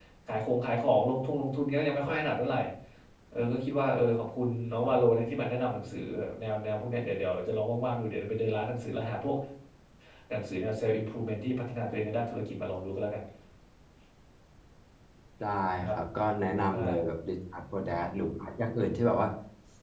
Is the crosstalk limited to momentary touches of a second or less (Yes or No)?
Yes